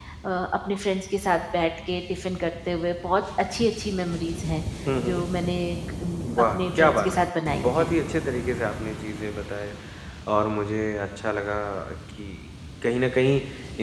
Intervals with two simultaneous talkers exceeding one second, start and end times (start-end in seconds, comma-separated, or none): 6.5-7.9